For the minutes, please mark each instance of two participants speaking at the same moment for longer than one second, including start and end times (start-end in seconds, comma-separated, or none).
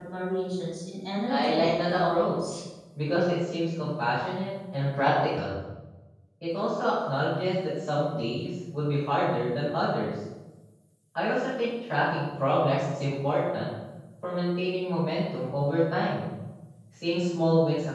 1.3-2.6